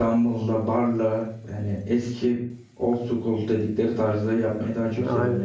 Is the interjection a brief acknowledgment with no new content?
Yes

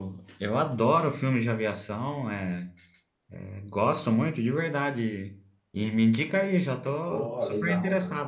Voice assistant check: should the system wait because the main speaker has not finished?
No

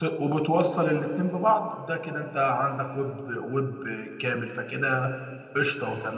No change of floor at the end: No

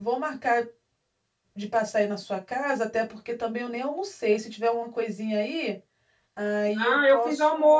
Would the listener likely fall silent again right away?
No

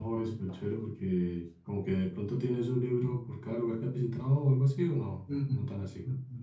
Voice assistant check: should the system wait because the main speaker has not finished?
No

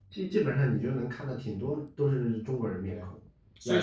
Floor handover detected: Yes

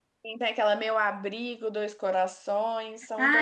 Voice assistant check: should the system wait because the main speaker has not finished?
No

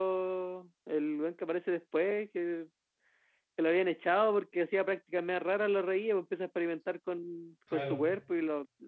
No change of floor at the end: Yes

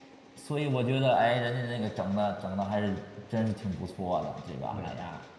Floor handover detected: Yes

